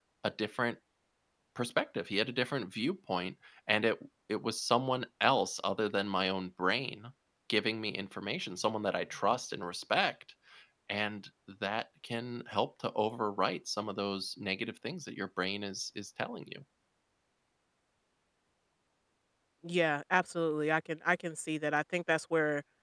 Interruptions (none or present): none